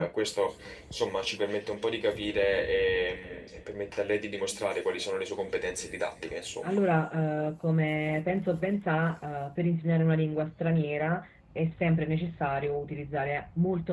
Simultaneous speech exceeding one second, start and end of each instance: none

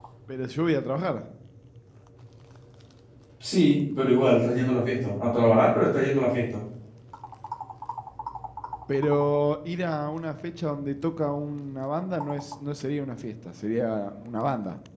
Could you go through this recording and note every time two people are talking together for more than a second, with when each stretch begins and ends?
none

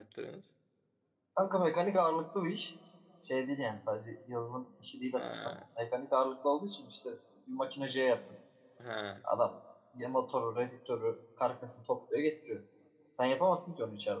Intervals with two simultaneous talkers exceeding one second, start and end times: none

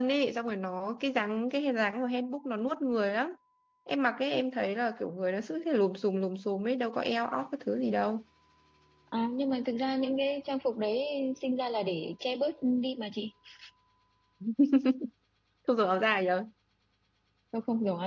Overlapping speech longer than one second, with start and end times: none

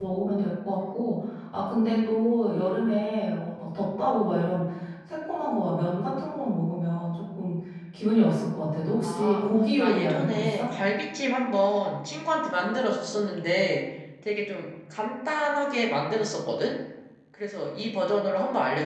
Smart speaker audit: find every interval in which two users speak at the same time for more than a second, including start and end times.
9.0-10.7

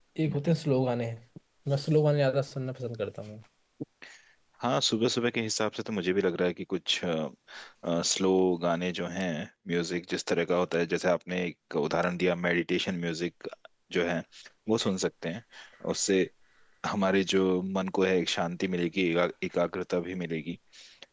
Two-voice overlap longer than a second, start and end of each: none

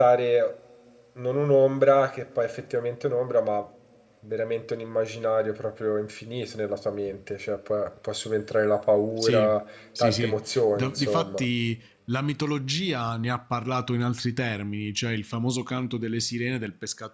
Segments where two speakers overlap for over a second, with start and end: 10.0-11.4

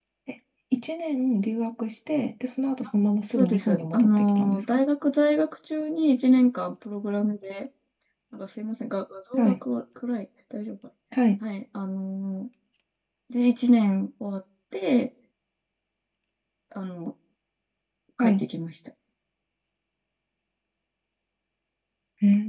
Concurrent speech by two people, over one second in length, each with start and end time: 3.4-4.8

